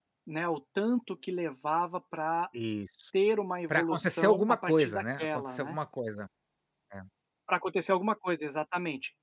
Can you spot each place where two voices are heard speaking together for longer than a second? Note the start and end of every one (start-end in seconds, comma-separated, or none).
3.7-5.8